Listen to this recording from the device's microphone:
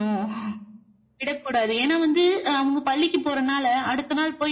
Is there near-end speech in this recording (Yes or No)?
No